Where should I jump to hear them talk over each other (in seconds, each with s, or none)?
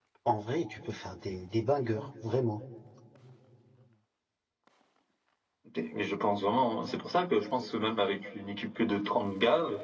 none